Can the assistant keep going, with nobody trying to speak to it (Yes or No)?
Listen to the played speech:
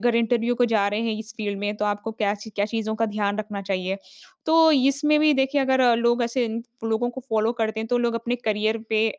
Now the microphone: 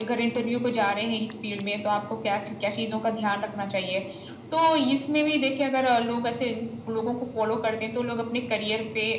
Yes